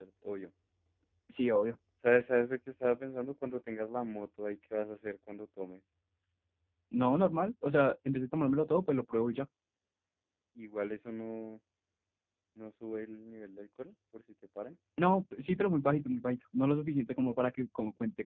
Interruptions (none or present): none